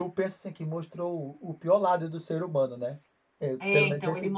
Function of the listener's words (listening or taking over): taking over